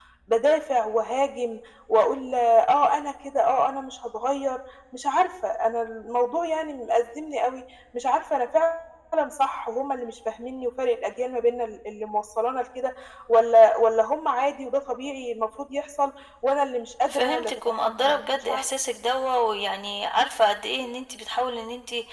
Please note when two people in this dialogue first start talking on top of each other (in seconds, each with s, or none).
17.1 s